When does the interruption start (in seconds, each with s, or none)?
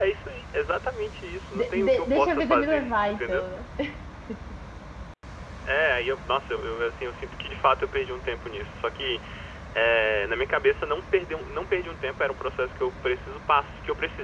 1.5 s